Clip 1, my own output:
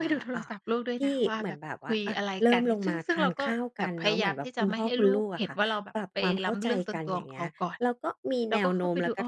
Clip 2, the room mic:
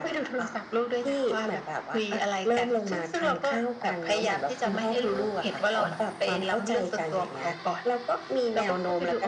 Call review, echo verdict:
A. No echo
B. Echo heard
B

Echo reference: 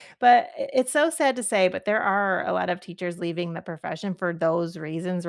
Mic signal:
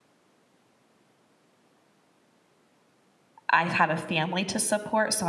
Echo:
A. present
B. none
B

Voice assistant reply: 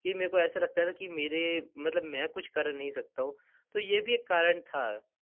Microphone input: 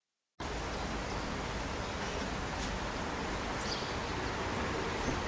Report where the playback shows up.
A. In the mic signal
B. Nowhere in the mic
B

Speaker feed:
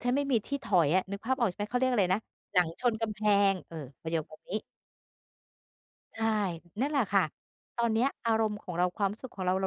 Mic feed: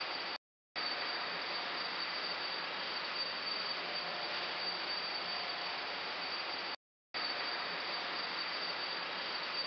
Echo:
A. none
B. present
A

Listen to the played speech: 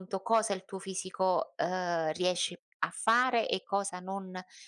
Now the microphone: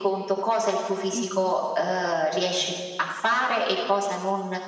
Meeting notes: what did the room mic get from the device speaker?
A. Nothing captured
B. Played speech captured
B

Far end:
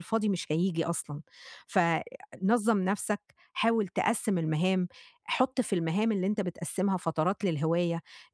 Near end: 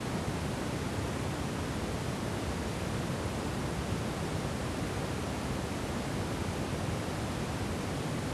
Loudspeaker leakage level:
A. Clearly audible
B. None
B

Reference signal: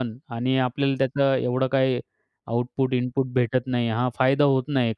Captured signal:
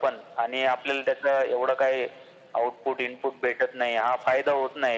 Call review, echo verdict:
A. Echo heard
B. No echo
A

